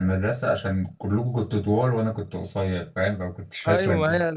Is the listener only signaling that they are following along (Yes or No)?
No